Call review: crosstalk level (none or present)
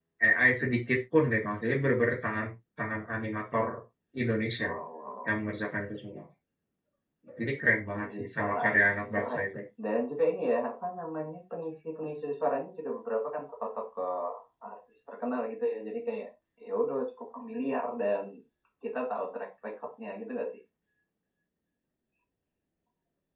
present